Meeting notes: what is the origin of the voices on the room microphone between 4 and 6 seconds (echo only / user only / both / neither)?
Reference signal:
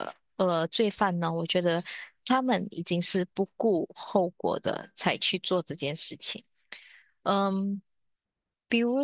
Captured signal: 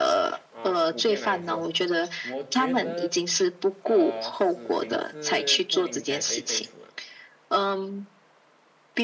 both